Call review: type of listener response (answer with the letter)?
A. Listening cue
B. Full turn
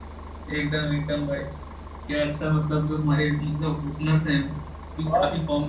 A